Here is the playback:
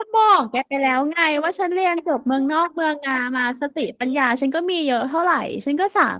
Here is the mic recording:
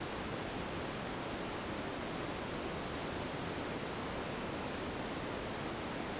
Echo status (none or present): none